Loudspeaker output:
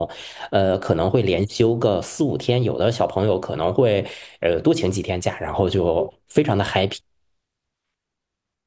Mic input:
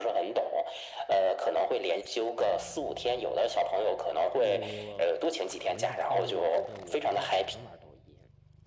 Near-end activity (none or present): present